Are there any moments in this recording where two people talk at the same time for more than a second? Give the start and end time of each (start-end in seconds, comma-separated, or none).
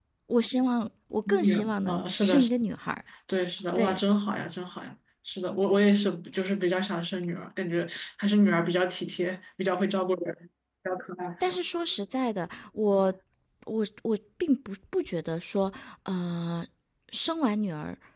1.3-2.5